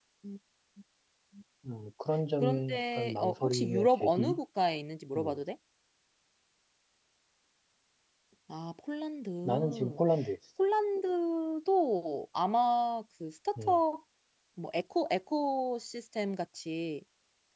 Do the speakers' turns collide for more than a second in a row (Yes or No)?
Yes